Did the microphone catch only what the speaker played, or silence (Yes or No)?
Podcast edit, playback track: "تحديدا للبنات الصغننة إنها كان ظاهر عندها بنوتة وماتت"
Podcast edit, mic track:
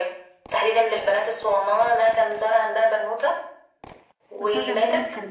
No